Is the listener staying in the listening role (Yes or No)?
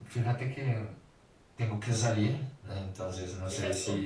Yes